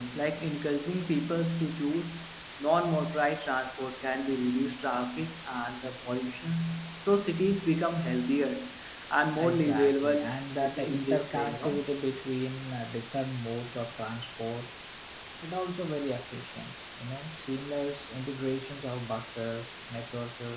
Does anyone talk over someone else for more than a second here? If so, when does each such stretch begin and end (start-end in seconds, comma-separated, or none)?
9.4-11.8